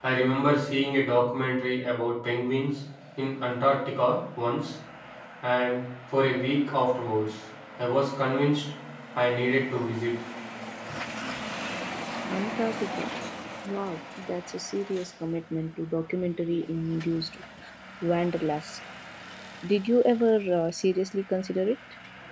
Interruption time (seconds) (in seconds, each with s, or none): none